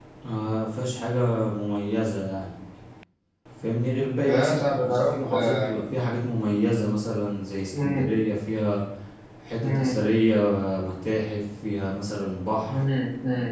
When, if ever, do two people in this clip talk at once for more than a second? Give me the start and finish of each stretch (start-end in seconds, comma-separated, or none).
4.2-5.7